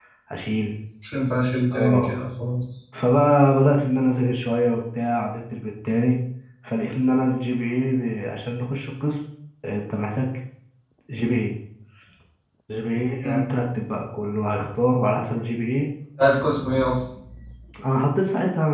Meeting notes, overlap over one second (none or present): none